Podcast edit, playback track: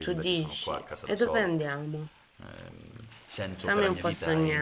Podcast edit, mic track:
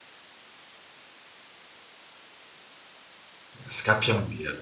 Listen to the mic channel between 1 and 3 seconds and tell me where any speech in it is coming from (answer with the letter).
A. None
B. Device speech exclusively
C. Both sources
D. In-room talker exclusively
A